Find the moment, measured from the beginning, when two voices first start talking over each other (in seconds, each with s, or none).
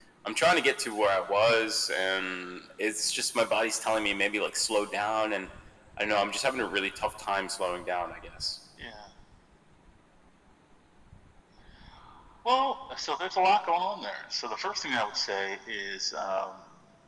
none